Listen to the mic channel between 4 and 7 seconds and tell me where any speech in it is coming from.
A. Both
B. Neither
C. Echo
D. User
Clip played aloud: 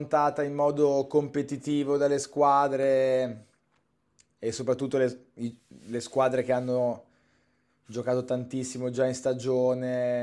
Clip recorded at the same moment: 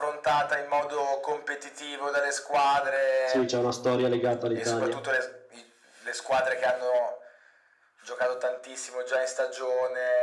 A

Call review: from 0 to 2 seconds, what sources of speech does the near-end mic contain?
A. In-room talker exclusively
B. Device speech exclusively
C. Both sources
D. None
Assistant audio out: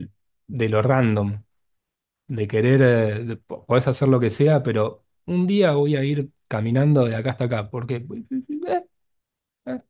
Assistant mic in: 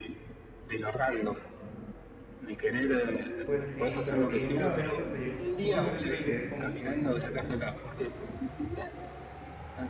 B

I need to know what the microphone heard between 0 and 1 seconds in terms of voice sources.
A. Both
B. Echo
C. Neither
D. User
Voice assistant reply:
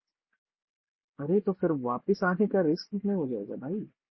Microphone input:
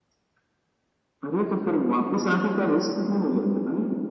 C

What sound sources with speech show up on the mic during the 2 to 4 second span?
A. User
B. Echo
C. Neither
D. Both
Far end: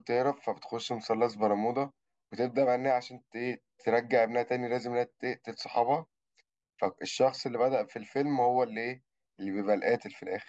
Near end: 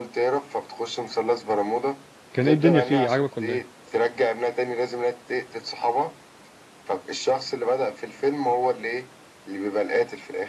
D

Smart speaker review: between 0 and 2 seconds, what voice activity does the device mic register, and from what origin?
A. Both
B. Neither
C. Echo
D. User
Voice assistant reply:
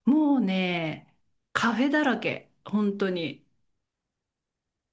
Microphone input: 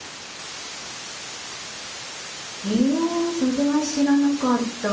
B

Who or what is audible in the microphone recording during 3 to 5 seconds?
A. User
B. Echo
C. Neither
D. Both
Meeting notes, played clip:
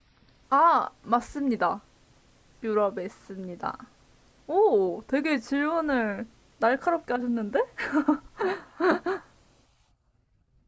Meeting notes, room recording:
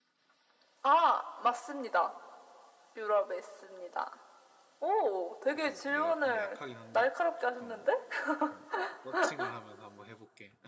B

